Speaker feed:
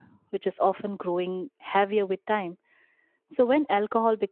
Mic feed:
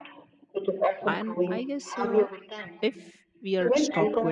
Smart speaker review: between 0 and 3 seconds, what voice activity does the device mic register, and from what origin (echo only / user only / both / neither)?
both